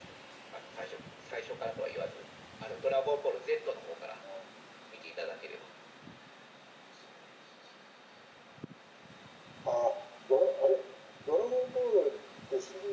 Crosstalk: none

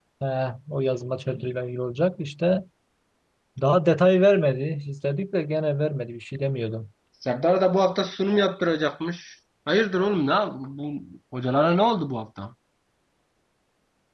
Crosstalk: none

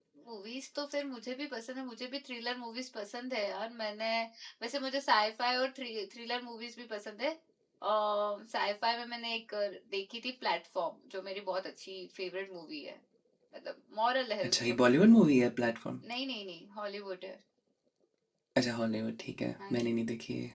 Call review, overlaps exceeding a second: none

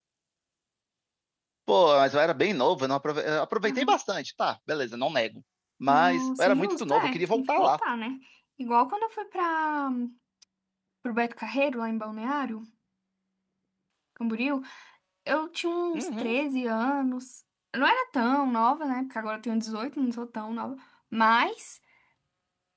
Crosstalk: present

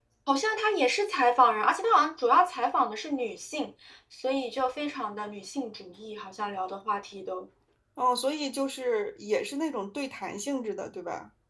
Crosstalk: none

